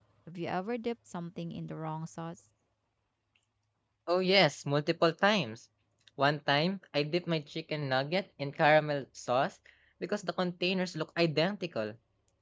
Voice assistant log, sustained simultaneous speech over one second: none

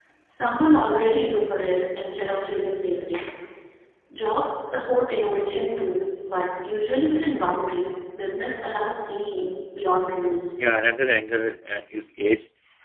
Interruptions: none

